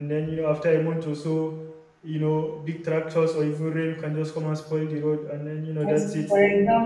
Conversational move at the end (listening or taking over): taking over